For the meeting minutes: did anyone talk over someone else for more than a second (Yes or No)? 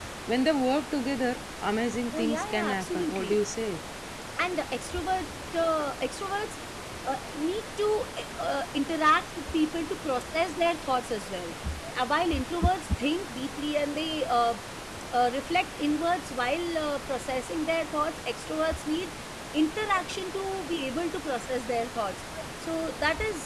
Yes